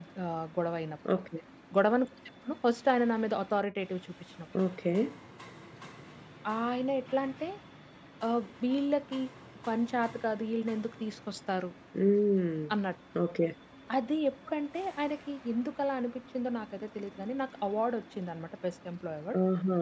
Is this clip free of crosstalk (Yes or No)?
Yes